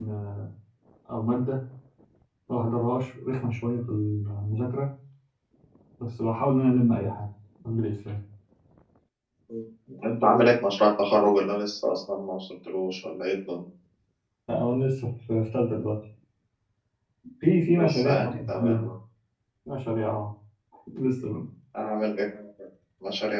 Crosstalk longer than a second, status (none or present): present